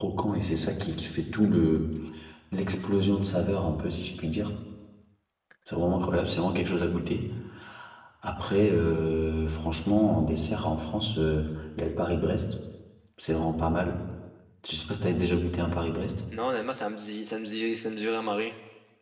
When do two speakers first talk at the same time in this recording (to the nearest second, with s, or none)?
none